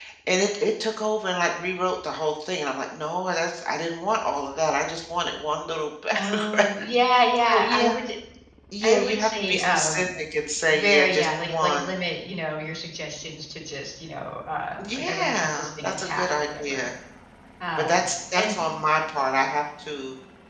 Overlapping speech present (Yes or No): Yes